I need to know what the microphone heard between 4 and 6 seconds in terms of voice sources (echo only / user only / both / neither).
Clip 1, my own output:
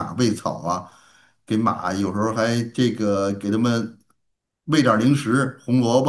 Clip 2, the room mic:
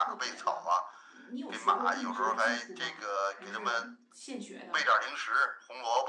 both